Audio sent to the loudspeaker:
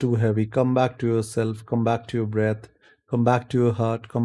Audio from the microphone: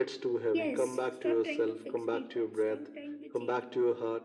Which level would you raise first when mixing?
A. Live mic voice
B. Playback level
A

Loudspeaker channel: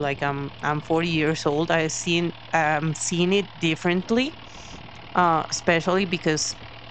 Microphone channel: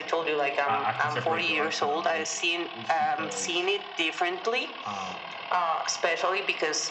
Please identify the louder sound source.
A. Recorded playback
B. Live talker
A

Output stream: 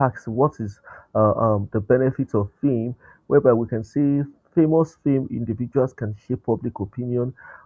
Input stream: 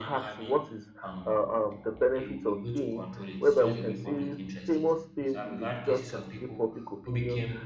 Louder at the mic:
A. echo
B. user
A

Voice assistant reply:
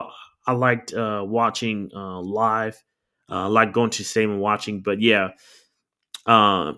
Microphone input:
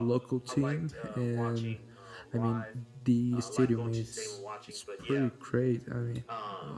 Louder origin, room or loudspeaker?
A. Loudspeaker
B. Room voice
B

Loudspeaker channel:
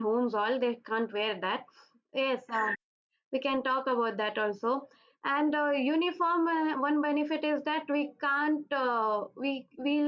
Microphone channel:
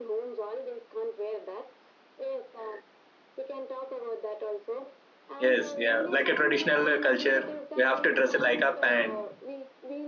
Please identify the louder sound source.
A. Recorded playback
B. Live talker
B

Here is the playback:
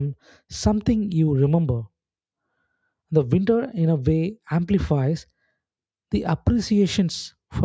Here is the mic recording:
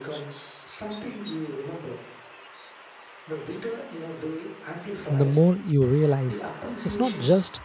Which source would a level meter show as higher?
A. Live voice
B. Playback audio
A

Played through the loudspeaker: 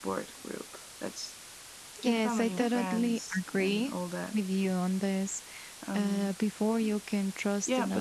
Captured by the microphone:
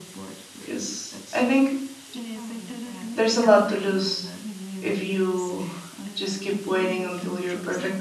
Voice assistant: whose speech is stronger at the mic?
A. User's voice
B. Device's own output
A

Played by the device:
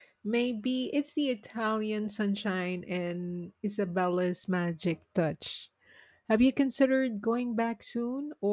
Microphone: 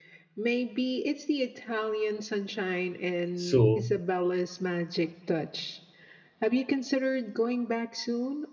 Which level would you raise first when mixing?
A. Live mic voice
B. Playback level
B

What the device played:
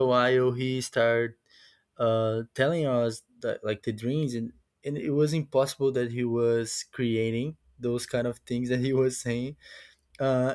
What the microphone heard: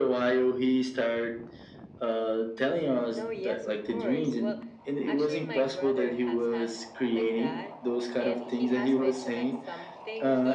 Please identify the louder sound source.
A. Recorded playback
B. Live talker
A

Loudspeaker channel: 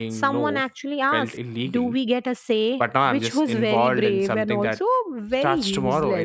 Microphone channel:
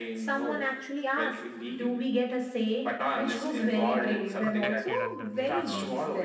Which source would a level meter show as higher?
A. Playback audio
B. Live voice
A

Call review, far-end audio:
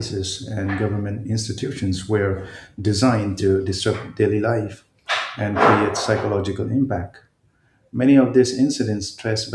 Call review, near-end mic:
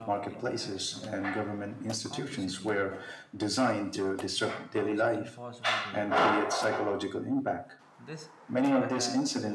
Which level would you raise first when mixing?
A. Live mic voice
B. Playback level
A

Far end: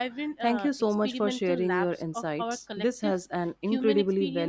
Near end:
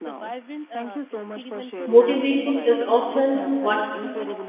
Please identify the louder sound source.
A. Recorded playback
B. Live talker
B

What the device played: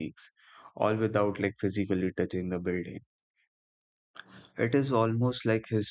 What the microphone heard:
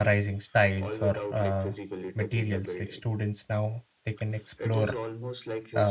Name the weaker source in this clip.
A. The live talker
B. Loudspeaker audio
B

